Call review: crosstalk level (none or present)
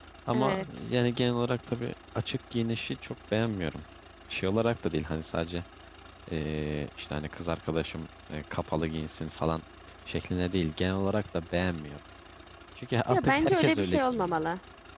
present